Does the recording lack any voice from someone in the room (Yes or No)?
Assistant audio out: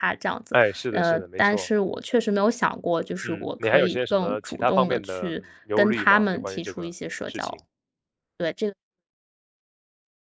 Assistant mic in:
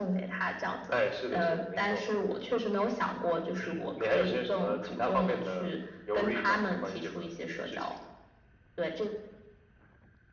Yes